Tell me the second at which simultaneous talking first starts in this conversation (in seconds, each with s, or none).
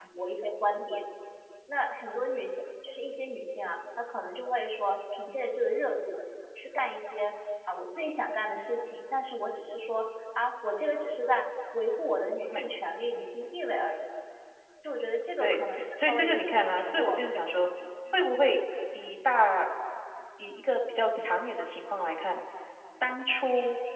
15.4 s